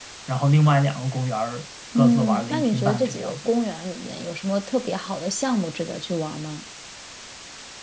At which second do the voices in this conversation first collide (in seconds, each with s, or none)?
1.9 s